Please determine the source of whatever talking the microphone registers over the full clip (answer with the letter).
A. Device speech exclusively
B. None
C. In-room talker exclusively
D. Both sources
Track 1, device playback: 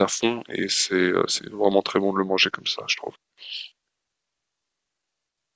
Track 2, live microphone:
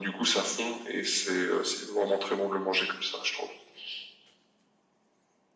A